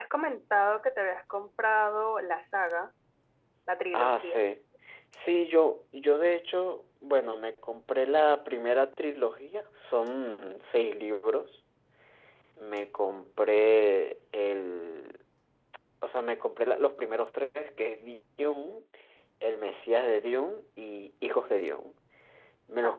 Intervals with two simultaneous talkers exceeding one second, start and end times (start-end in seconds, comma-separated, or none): none